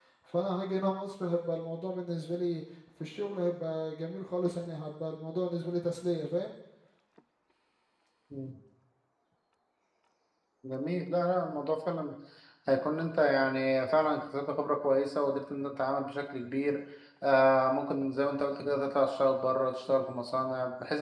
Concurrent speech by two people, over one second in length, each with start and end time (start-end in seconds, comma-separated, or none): none